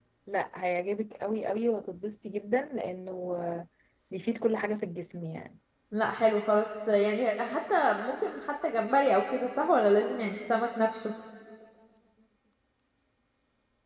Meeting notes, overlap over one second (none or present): none